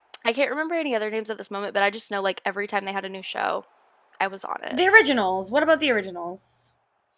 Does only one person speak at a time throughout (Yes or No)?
Yes